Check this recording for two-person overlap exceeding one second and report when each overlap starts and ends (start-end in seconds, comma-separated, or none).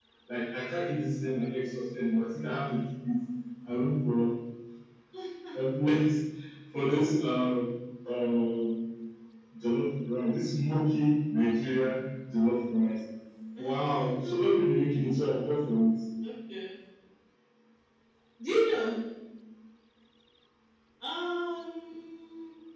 none